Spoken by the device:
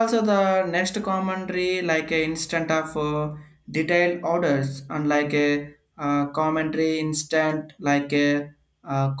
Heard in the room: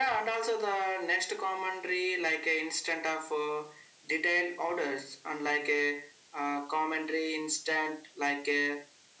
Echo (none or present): present